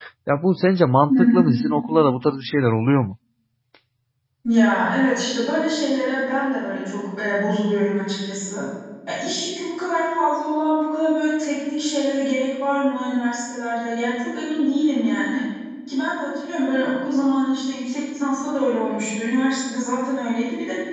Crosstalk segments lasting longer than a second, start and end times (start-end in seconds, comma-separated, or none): none